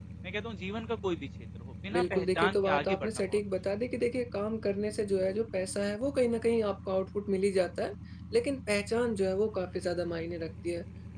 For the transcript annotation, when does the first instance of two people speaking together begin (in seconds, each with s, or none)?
1.9 s